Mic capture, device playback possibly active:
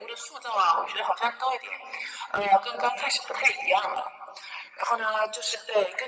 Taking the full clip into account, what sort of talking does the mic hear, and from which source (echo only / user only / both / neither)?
echo only